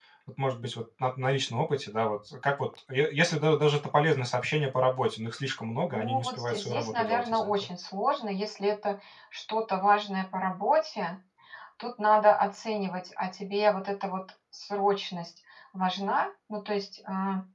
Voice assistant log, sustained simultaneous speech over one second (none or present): present